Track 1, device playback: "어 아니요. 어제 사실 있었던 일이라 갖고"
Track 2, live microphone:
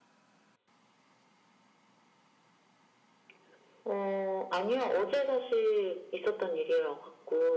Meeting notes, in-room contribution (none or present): none